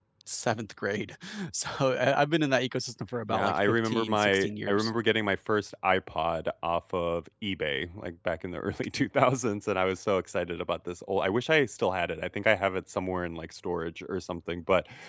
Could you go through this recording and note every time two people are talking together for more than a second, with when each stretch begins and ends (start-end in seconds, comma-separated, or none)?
3.3-4.9